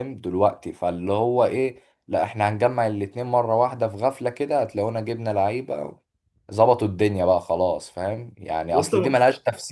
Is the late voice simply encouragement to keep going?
Yes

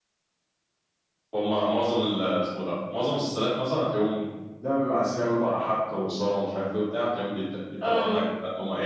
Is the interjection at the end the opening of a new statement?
No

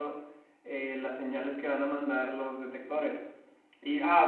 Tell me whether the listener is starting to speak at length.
No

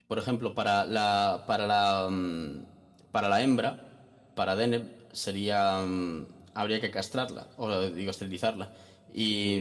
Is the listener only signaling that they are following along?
Yes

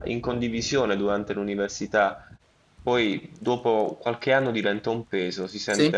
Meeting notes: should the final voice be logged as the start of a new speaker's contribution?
No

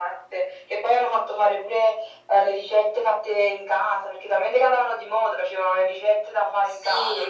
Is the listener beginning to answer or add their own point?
Yes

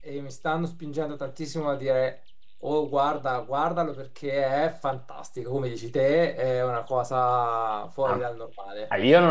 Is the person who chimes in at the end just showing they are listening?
No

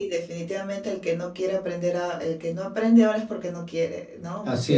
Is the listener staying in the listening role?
Yes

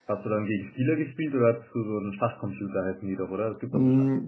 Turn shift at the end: Yes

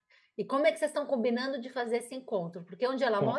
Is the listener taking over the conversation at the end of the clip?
Yes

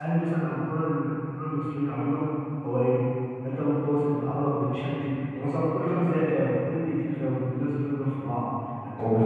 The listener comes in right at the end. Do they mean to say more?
Yes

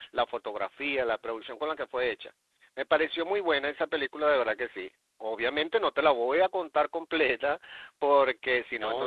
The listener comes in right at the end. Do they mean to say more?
Yes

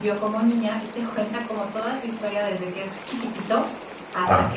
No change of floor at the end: Yes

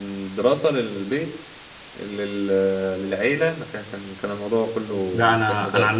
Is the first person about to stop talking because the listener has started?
Yes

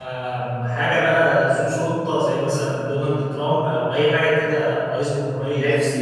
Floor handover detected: Yes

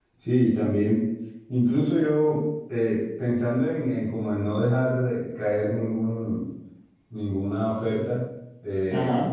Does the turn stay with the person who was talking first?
Yes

